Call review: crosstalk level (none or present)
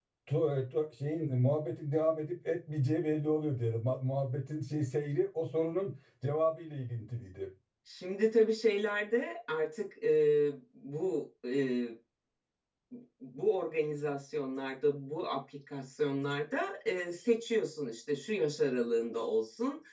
none